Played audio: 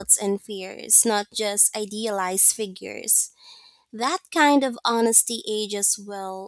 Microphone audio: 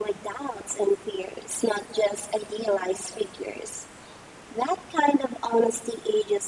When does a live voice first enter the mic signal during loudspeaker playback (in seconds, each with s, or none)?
none